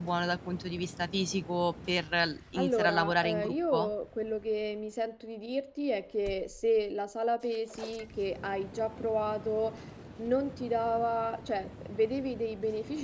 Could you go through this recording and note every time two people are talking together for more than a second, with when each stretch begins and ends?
2.6-3.9

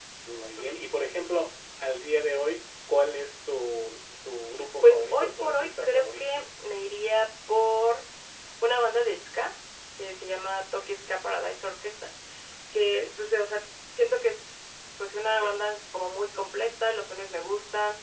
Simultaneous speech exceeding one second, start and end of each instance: 4.8-6.2

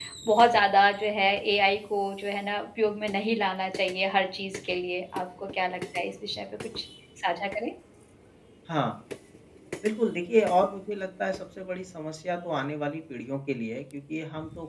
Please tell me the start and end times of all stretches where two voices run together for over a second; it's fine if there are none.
none

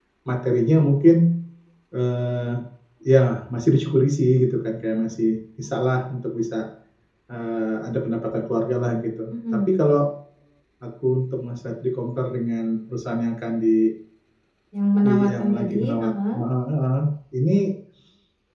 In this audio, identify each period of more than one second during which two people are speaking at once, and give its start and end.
15.0-16.4

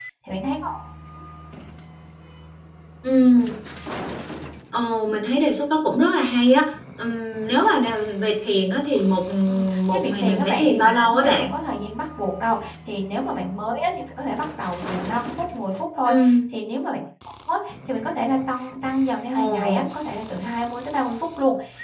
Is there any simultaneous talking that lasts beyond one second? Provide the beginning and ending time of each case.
9.5-11.5

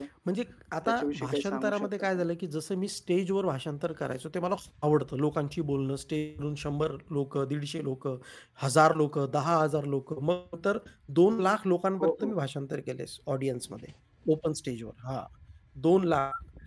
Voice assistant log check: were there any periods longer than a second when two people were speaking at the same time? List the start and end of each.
0.9-2.2

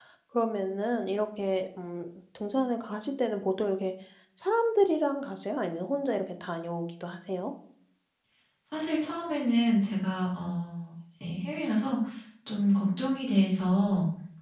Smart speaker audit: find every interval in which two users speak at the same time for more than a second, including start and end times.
none

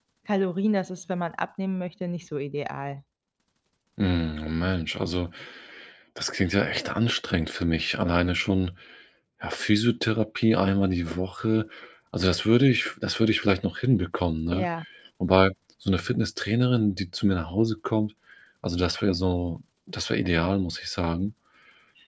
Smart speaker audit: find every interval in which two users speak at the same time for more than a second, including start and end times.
none

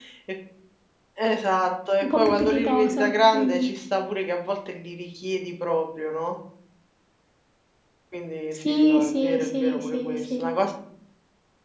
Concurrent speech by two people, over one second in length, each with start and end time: 2.0-3.7, 8.7-10.4

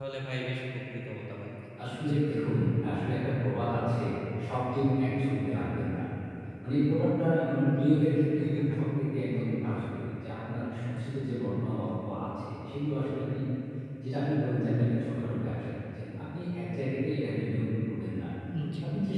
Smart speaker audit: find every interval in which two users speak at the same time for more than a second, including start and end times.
none

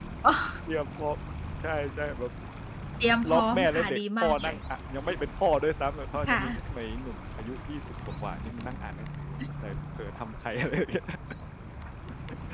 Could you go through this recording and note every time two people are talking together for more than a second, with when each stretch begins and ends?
3.3-4.6

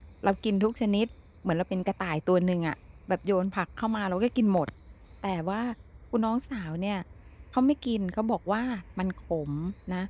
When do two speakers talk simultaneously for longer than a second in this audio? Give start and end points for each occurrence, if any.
none

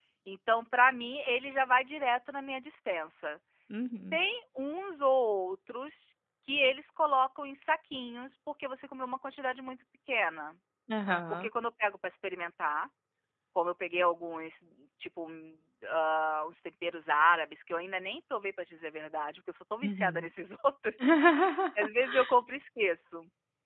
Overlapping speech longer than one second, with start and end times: none

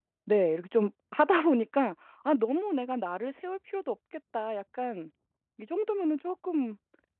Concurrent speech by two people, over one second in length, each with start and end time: none

